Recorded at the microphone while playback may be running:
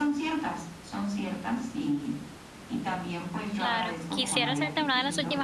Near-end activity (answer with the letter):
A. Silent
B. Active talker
B